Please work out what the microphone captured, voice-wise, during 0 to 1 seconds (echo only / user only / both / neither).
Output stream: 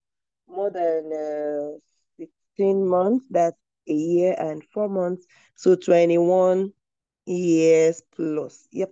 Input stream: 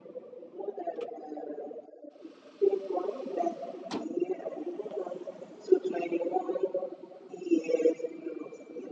echo only